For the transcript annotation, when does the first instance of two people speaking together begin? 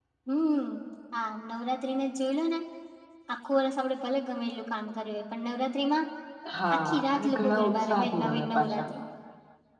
6.8 s

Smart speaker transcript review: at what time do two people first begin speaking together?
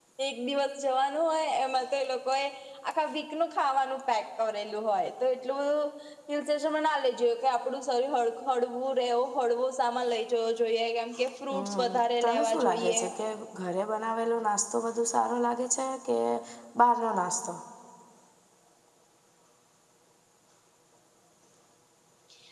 11.5 s

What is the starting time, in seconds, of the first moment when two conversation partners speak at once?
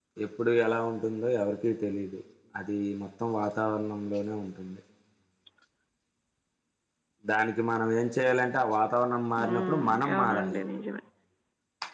9.4 s

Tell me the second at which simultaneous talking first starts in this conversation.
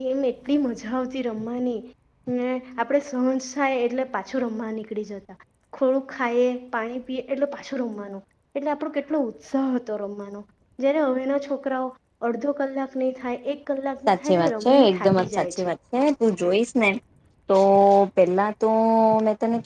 14.1 s

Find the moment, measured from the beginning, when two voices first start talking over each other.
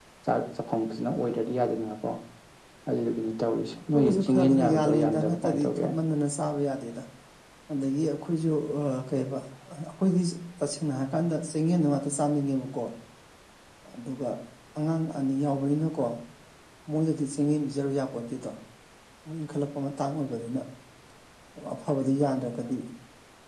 3.9 s

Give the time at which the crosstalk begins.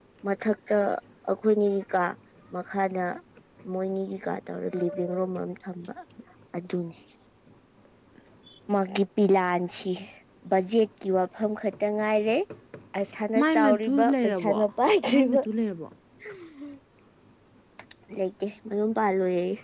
13.4 s

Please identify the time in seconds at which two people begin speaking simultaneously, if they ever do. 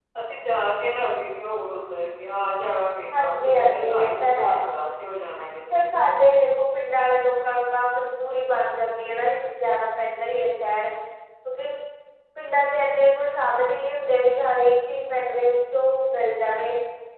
3.1 s

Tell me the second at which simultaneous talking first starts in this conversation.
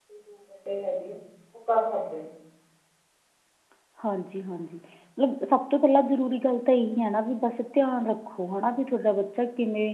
none

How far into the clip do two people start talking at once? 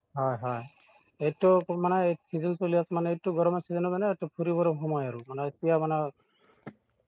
none

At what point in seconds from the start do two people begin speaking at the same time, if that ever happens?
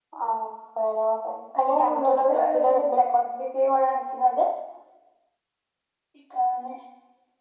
1.6 s

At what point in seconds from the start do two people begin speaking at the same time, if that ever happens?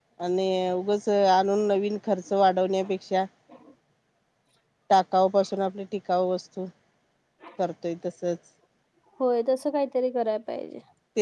none

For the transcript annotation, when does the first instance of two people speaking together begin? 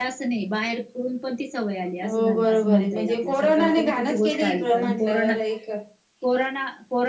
2.0 s

